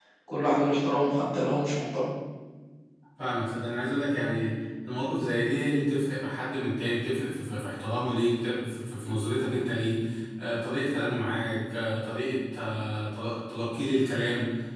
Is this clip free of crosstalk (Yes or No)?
Yes